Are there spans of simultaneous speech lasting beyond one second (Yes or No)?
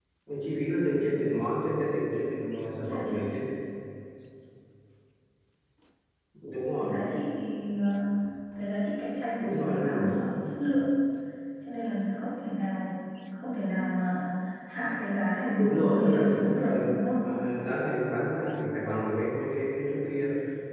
Yes